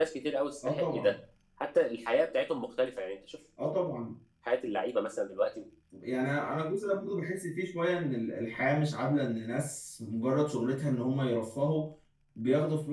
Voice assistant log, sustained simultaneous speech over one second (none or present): none